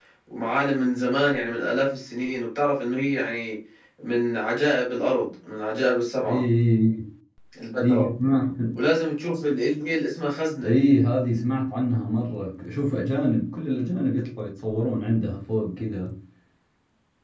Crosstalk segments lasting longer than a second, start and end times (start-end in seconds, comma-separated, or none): none